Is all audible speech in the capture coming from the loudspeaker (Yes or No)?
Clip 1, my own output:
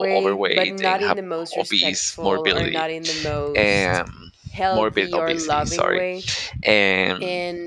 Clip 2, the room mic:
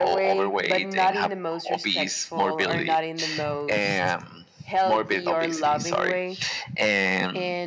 Yes